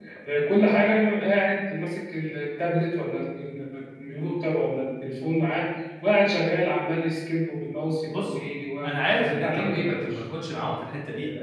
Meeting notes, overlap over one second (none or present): present